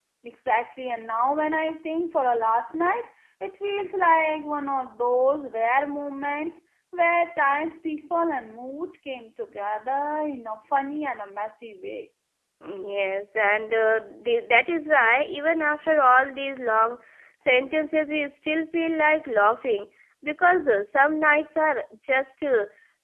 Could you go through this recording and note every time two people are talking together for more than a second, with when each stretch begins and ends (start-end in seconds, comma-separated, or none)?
none